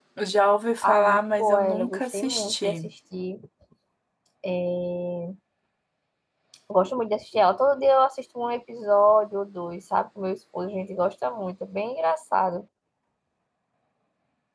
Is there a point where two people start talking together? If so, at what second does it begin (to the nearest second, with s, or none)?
1 s